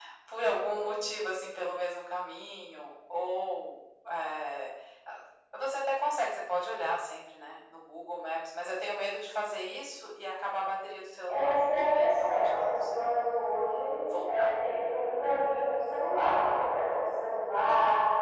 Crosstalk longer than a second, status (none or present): present